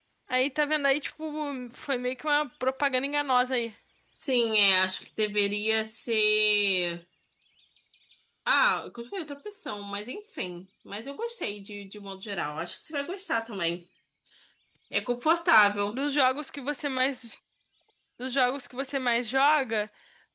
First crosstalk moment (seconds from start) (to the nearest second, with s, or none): none